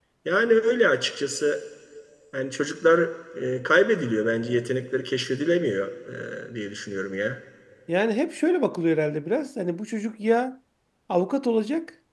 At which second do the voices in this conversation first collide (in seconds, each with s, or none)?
none